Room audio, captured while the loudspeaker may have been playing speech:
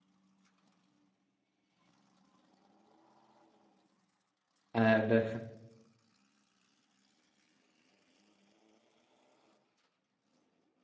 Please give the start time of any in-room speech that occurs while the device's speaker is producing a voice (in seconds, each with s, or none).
4.7 s